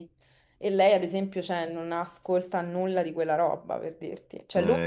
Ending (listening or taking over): listening